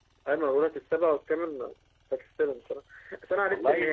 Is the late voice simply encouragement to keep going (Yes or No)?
Yes